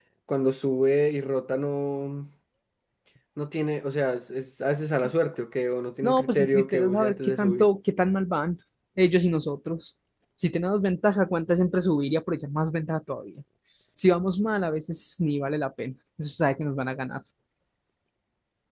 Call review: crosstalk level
present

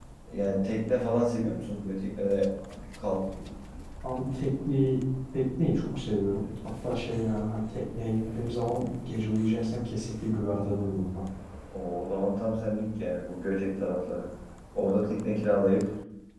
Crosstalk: none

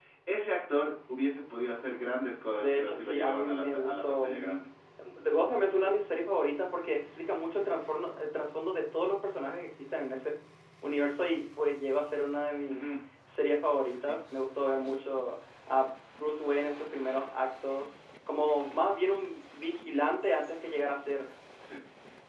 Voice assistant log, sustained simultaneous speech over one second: present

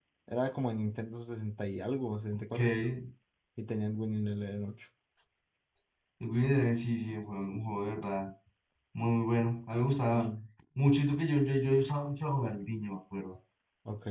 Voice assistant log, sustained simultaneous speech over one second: none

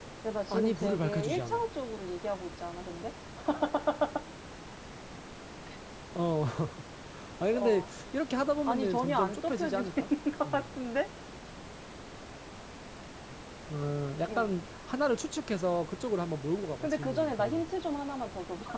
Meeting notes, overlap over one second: present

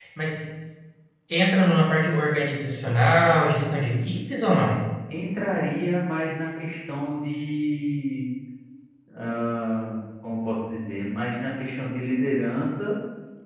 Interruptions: none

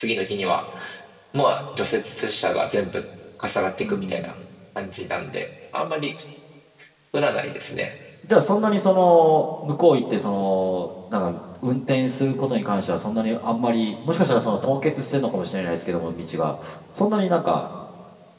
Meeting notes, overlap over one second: none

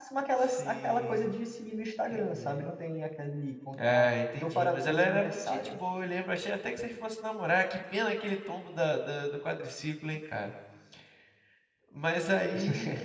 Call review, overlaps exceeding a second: present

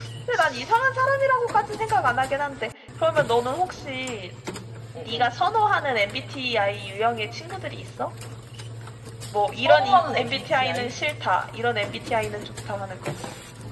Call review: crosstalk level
present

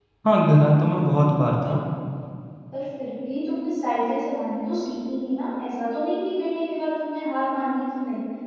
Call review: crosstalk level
none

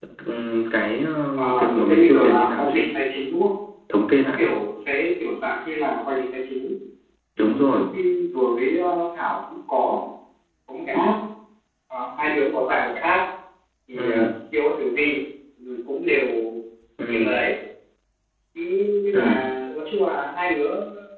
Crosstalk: present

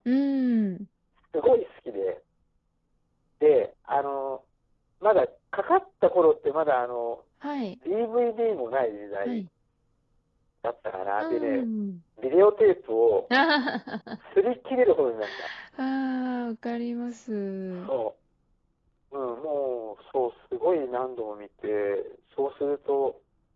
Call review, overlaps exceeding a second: none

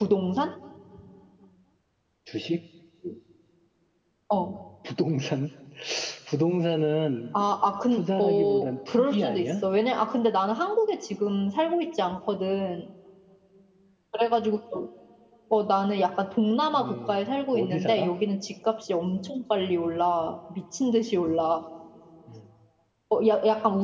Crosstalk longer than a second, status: present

